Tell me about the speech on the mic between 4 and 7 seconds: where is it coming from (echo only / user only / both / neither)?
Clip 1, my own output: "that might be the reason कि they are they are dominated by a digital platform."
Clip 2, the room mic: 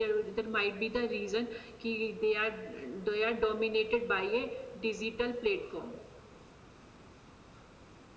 echo only